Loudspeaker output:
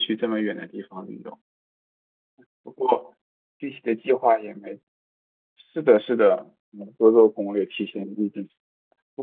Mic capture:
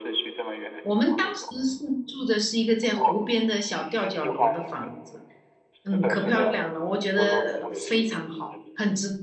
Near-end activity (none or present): present